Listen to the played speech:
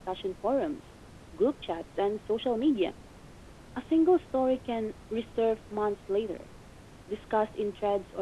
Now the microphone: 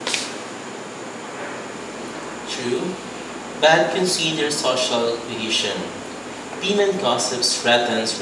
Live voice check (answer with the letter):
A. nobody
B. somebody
B